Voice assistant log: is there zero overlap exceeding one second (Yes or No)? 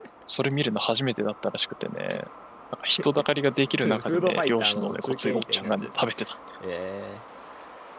No